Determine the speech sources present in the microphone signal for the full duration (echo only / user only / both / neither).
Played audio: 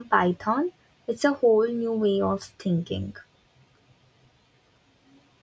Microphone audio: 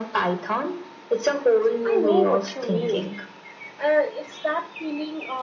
both